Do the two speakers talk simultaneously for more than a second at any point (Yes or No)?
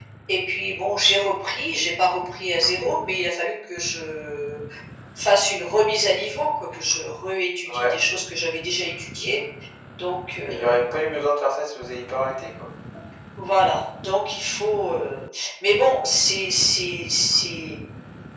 No